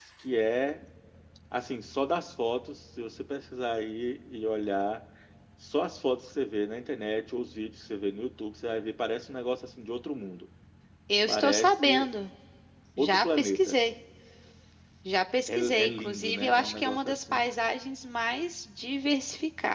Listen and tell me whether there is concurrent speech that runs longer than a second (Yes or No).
Yes